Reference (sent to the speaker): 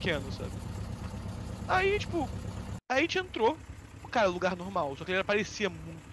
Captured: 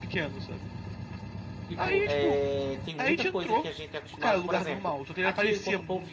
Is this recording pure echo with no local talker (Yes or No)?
No